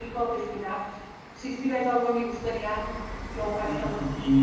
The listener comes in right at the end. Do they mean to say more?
Yes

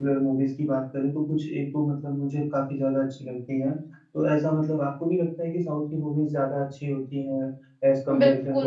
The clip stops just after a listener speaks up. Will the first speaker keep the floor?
No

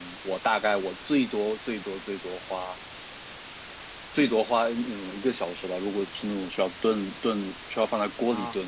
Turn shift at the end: No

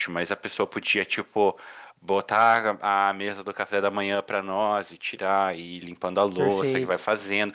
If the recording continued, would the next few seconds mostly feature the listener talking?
No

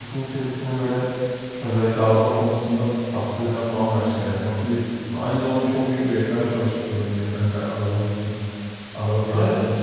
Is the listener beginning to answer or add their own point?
Yes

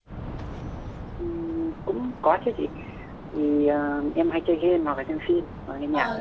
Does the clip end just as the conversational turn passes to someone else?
Yes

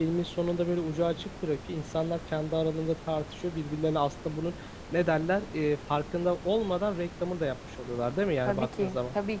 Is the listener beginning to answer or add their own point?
Yes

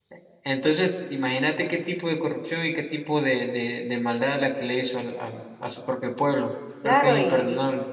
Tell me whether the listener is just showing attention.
No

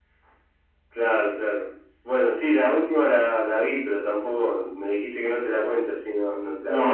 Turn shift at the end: Yes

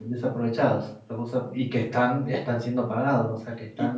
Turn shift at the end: Yes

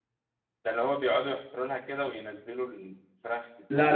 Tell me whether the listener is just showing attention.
No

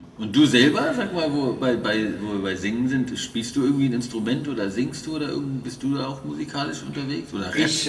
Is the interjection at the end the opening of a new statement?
Yes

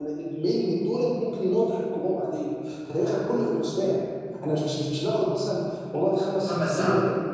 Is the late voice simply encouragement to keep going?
Yes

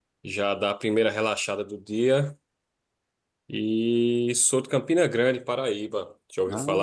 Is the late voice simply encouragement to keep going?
No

